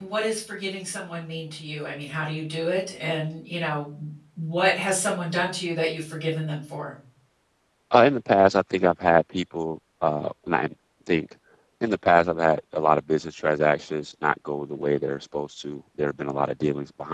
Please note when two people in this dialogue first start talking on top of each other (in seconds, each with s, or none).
none